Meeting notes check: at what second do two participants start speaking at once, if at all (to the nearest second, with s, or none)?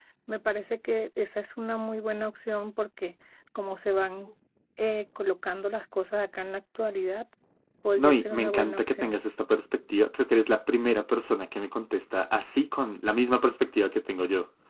8 s